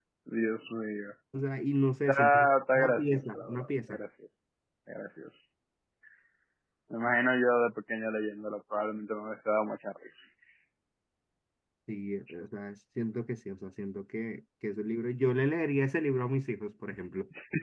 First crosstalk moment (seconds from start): 2.1 s

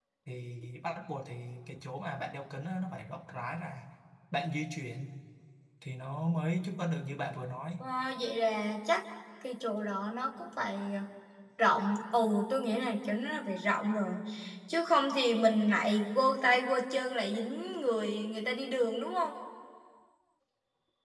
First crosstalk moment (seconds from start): none

